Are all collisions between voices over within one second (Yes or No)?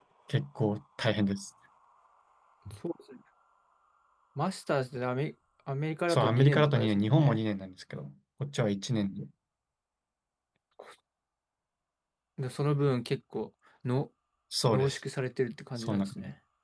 No